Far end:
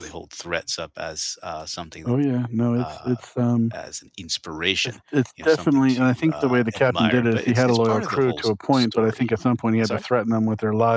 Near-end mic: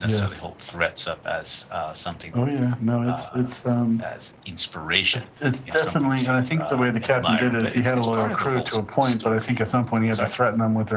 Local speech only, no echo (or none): none